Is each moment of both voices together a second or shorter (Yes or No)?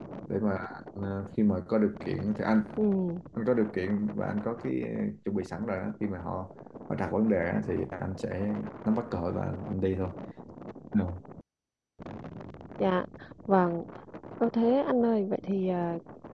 Yes